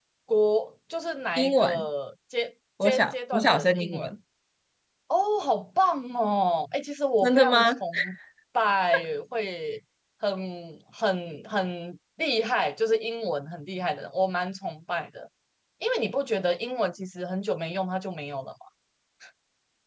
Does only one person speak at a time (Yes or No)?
No